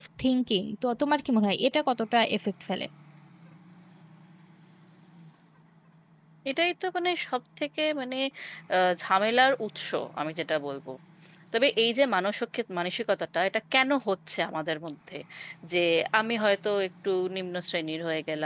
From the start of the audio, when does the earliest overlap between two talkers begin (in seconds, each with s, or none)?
none